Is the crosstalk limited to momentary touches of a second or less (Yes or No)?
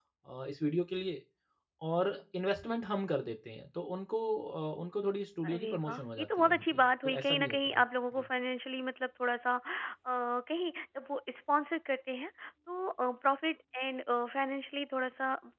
No